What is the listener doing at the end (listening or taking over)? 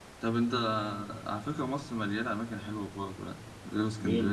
taking over